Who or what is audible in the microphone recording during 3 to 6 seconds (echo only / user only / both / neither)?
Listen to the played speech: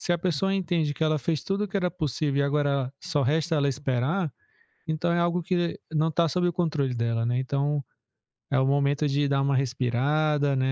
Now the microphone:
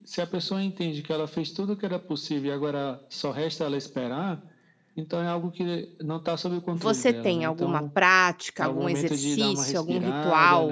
echo only